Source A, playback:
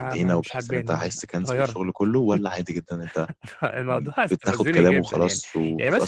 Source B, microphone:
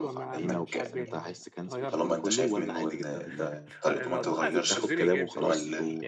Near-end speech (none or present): present